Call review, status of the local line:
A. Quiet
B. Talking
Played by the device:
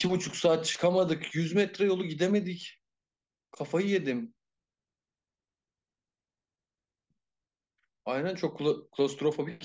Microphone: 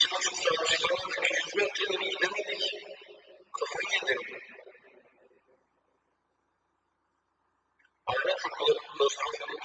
A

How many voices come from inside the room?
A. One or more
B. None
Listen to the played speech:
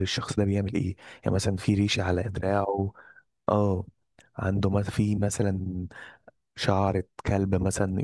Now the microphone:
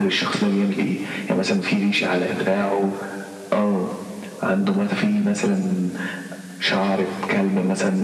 B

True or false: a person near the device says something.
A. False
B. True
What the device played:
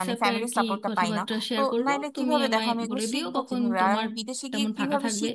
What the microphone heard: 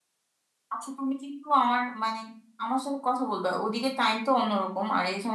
B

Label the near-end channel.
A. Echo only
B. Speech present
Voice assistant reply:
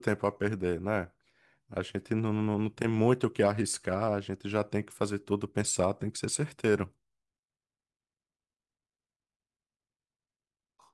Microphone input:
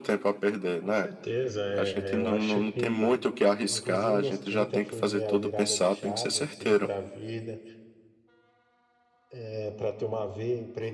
B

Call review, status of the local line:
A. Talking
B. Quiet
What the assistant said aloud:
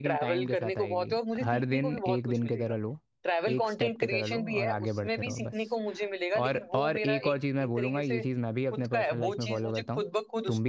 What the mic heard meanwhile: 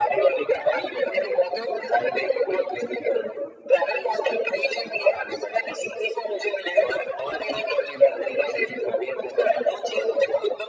B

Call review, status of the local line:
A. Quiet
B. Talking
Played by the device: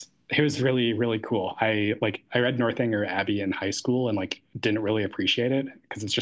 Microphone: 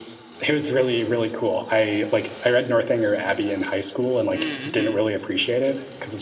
B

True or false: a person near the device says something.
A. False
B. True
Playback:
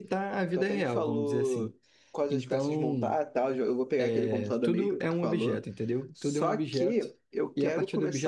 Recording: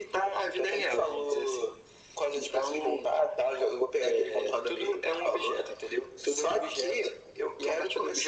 A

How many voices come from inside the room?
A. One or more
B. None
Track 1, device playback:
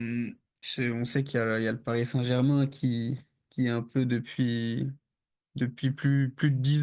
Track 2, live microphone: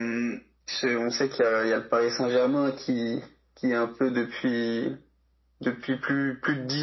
B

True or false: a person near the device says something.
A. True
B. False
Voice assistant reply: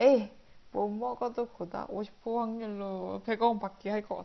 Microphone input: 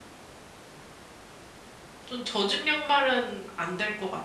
A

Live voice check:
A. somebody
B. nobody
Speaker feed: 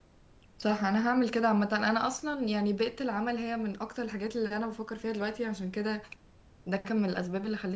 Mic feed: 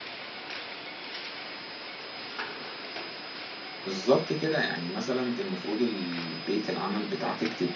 A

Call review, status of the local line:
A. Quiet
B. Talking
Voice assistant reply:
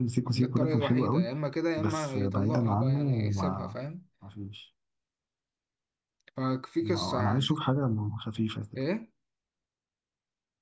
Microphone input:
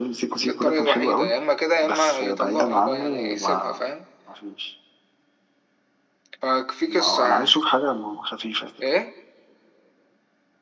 A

